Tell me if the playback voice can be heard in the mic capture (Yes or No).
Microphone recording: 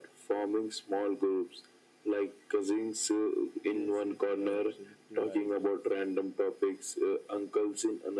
Yes